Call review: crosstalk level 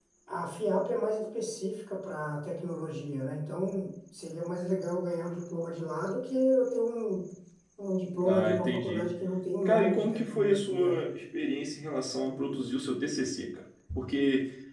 present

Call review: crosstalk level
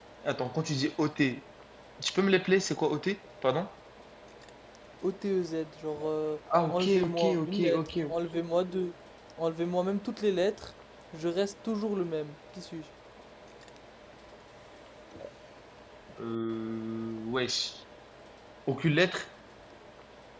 present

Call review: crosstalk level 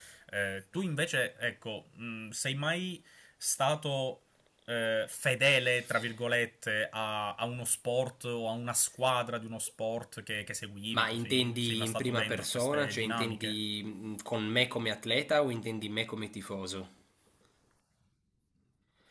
present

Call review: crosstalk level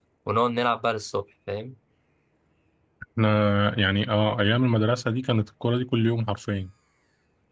none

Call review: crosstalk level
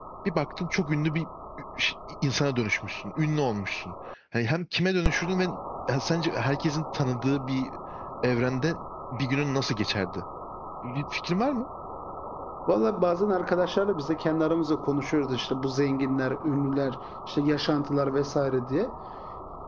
none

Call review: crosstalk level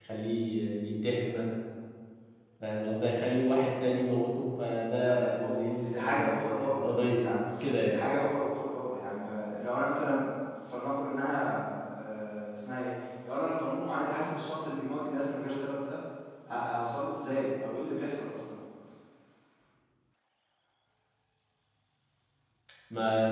present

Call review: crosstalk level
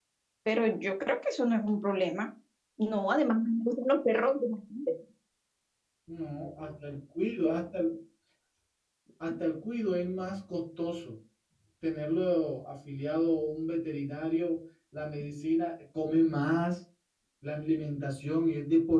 none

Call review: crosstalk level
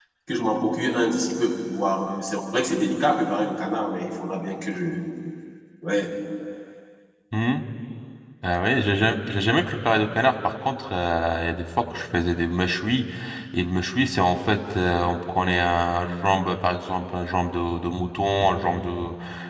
none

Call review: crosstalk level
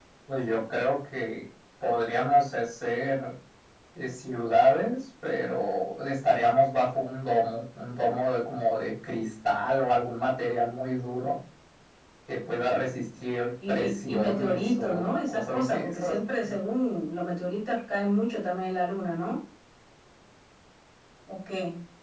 present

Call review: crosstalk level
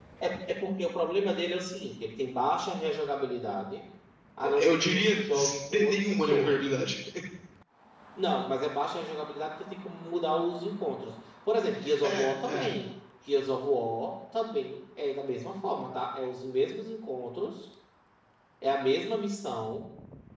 present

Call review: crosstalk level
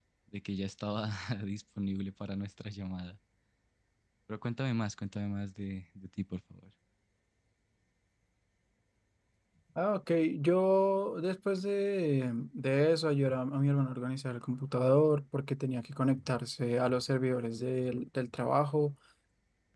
none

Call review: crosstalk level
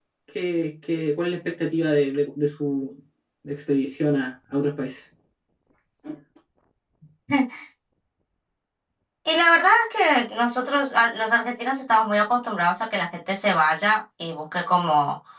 none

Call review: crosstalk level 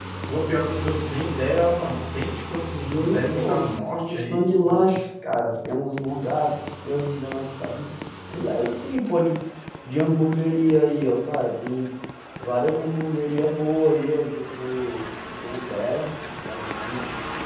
present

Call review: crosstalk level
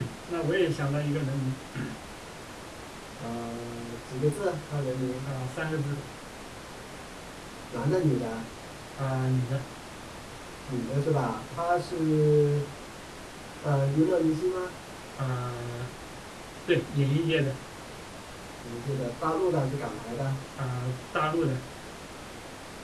none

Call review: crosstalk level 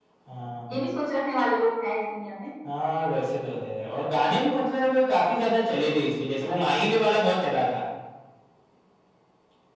none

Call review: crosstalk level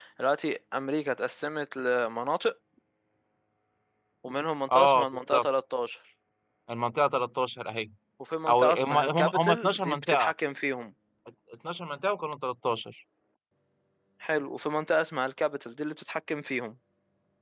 present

